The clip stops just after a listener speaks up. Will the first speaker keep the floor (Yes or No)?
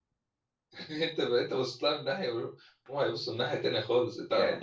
Yes